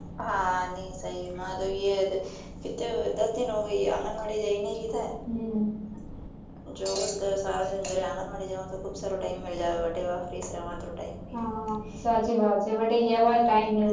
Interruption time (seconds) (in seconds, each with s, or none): none